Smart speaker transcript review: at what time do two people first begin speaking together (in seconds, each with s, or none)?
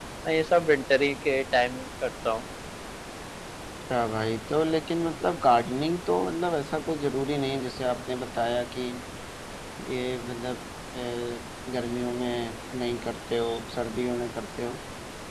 none